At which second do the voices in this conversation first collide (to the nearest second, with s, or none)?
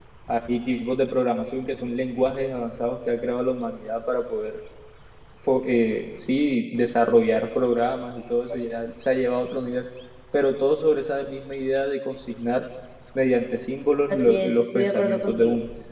14 s